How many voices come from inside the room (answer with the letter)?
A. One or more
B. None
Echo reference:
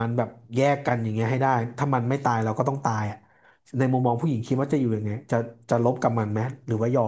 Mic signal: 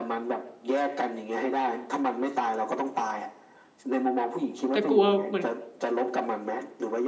A